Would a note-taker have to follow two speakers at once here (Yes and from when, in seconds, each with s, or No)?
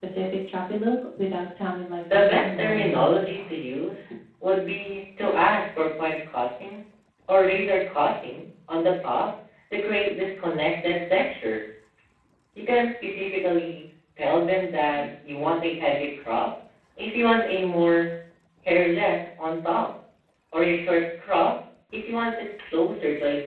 Yes, from 2.0 s